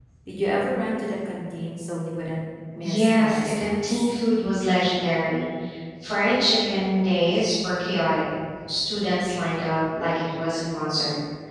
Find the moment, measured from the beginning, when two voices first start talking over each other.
2.7 s

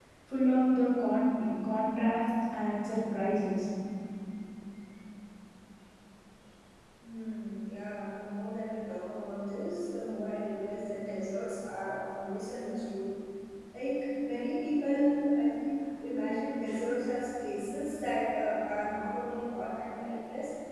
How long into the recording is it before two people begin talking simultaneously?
none

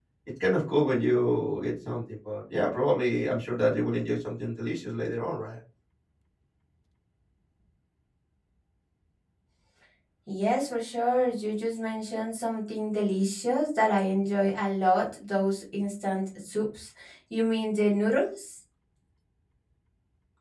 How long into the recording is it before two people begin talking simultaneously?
none

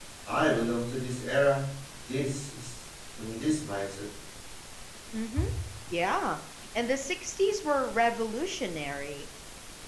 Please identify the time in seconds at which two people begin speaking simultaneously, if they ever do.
none

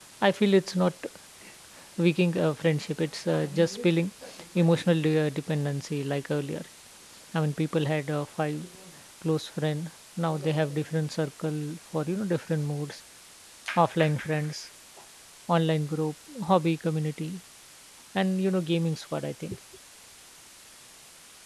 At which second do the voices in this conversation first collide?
none

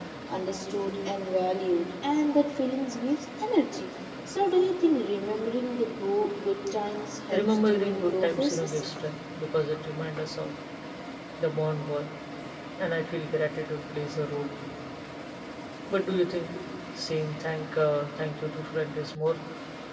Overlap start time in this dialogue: 7.3 s

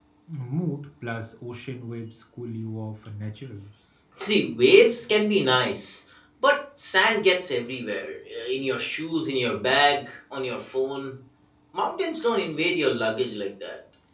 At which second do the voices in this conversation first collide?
none

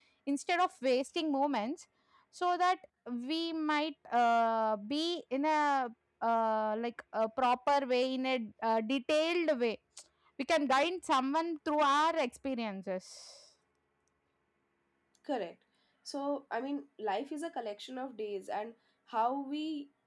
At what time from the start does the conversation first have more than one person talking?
none

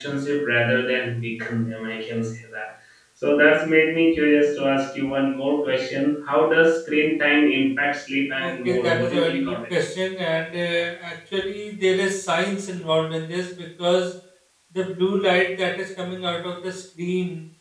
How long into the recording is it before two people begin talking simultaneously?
8.4 s

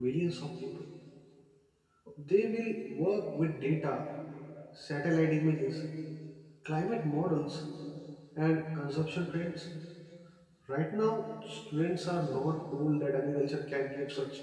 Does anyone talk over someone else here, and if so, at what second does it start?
none

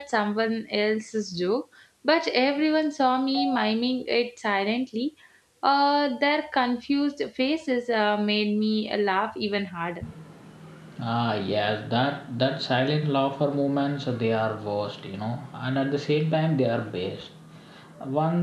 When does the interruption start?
none

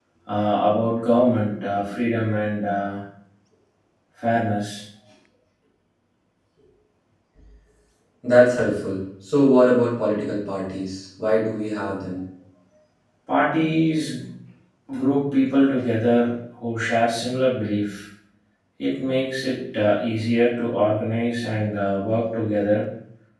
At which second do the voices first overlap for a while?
none

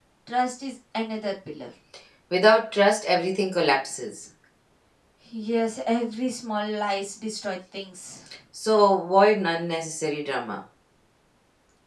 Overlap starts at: none

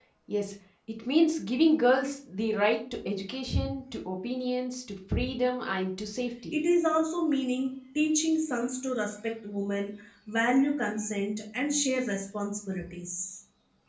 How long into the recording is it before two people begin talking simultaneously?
none

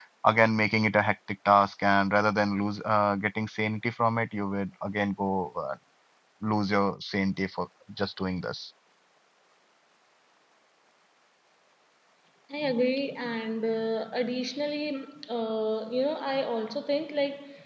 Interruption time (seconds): none

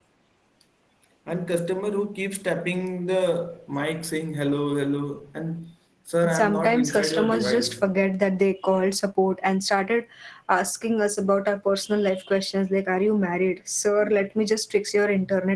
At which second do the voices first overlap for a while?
6.2 s

